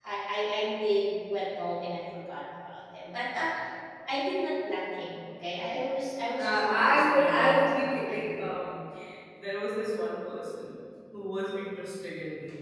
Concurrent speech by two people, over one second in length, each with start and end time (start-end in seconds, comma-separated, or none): 6.4-8.6